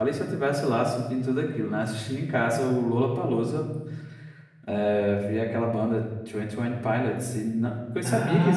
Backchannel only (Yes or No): Yes